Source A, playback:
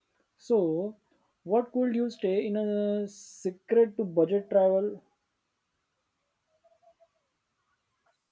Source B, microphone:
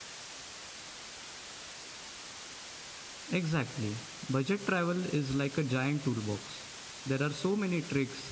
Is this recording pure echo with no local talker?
No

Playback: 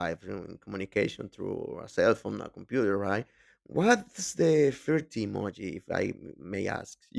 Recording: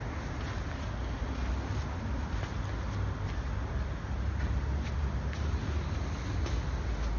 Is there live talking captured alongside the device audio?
No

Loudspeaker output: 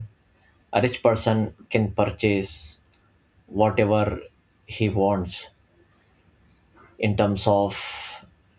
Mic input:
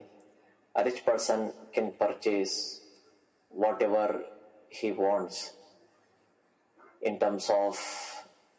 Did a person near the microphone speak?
No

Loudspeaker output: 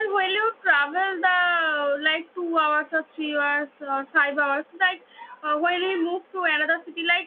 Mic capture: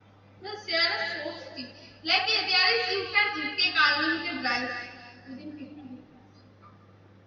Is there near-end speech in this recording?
Yes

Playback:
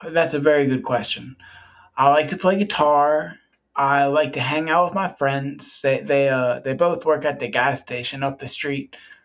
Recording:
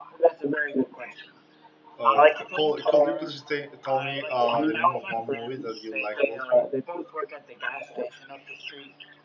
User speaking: Yes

